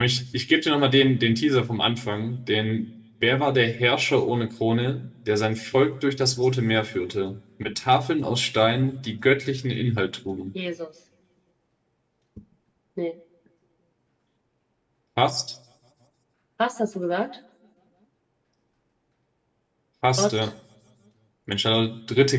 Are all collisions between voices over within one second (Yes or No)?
Yes